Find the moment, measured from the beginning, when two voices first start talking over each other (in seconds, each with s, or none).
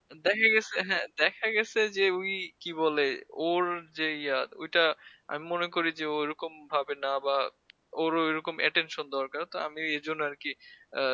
none